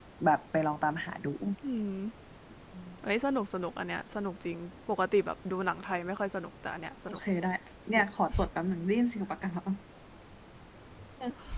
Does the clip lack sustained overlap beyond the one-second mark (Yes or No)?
Yes